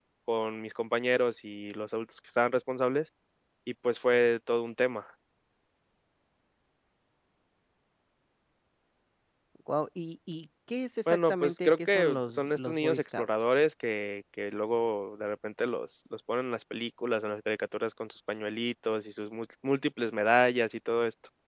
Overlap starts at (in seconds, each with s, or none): 11.1 s